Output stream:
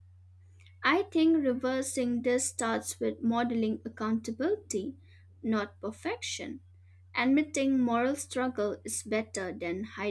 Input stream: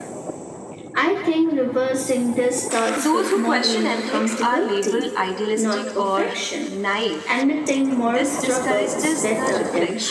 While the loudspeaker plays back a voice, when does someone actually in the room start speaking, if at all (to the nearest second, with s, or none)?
3 s